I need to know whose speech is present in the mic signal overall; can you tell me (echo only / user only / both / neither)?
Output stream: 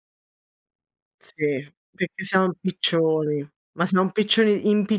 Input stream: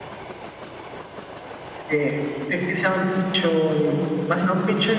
echo only